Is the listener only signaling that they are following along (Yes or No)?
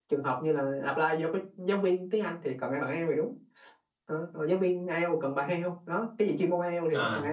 No